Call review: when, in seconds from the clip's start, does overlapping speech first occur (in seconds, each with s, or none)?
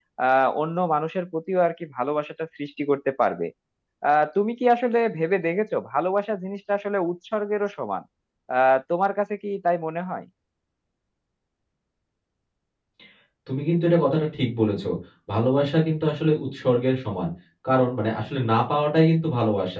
none